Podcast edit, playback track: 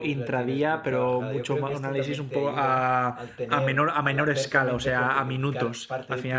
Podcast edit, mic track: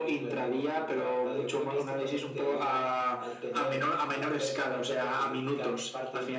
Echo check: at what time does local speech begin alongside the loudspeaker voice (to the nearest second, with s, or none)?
none